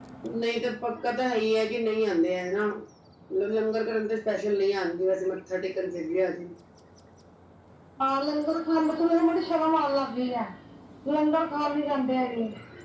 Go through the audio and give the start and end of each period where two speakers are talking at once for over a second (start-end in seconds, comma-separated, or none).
none